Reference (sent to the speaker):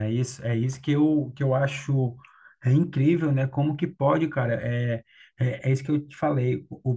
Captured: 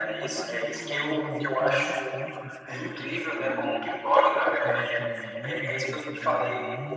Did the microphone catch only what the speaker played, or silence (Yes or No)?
No